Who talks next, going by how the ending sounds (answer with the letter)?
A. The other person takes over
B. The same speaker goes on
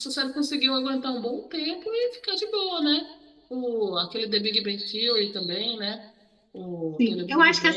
A